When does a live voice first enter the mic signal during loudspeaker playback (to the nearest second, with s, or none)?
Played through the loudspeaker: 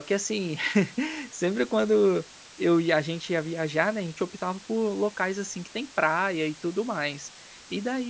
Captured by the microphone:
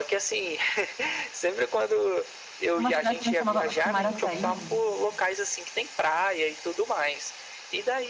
3 s